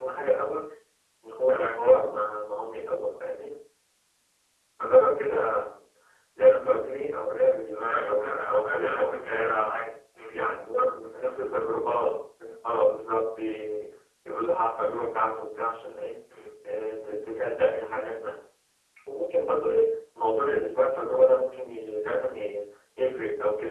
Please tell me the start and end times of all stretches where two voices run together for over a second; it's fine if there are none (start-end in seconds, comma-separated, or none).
7.8-9.8